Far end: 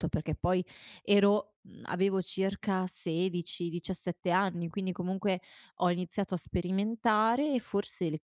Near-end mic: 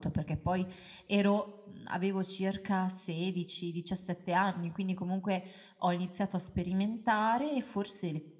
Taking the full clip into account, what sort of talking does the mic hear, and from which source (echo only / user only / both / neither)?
echo only